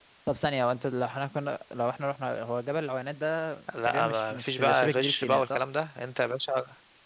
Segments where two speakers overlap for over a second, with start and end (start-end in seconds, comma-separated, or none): 3.8-5.6